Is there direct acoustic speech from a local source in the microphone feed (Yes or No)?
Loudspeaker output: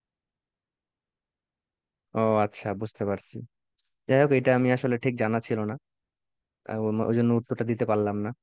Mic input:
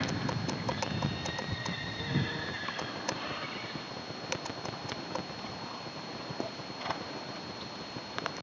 No